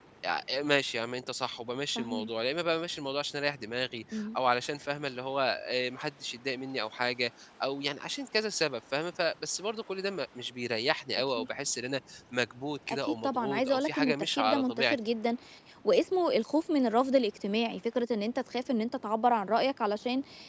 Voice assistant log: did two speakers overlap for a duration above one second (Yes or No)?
Yes